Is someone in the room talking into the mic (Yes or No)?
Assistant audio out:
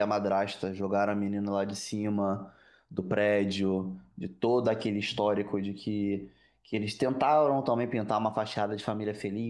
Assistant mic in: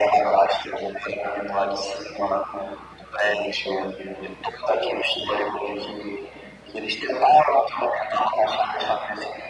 No